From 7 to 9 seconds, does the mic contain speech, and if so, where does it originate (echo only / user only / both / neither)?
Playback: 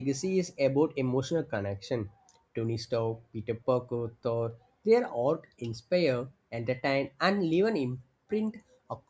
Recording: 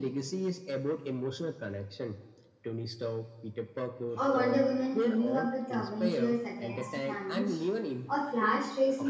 both